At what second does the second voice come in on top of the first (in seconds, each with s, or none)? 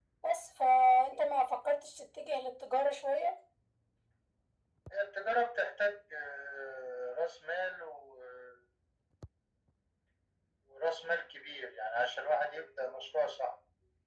none